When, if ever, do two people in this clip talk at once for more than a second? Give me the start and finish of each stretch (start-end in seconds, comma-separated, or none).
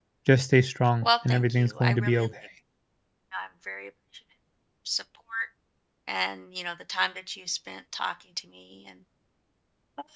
1.0-2.3